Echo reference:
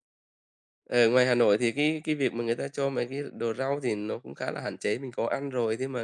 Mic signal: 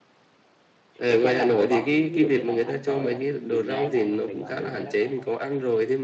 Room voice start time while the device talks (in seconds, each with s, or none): 1.1 s